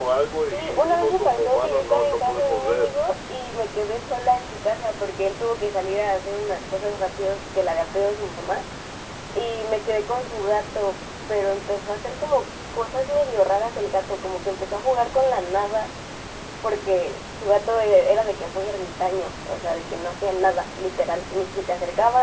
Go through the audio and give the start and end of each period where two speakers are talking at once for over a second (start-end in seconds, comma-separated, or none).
0.5-2.9